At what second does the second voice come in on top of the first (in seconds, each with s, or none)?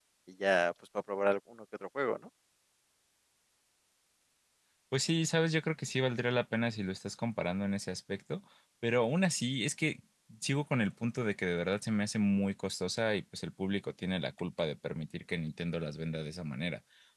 none